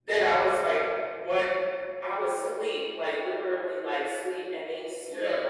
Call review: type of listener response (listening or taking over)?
listening